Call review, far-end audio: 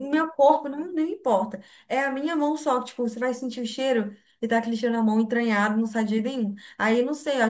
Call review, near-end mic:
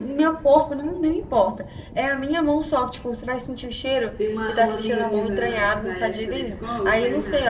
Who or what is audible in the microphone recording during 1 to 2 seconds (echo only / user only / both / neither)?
echo only